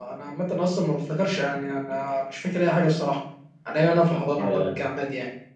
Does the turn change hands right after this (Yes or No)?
No